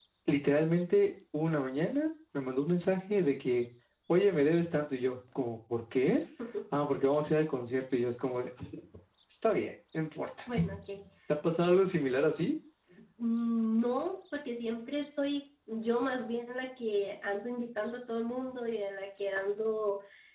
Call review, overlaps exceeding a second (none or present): none